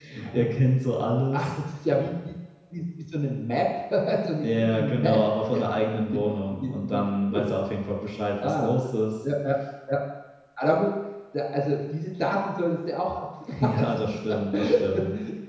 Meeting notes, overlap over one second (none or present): present